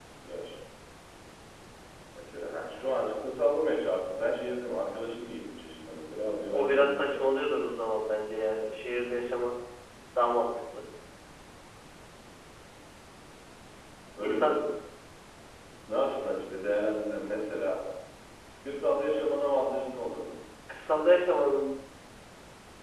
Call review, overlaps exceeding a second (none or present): present